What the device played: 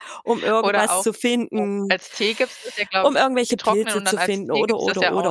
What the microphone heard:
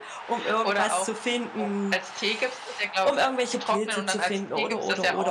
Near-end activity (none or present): none